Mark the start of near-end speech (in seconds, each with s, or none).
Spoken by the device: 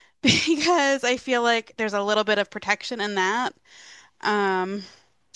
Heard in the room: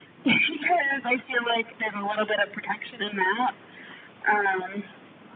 none